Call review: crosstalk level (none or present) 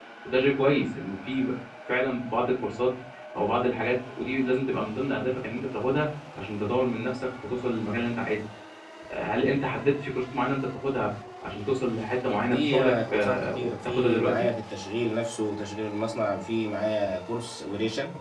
present